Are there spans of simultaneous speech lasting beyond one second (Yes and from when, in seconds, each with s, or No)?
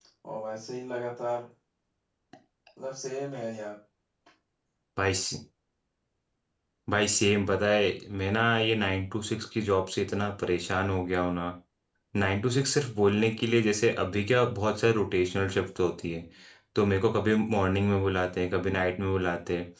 No